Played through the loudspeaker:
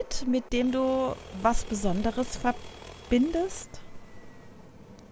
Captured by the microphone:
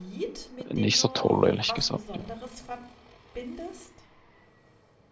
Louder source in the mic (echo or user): user